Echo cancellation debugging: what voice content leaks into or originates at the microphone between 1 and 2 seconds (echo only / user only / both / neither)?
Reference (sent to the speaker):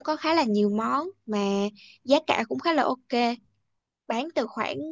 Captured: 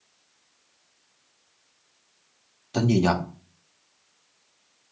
neither